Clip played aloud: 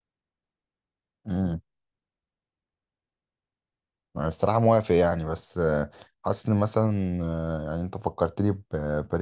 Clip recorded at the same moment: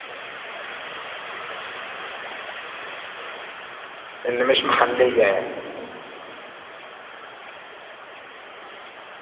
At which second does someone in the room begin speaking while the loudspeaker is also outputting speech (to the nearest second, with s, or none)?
4 s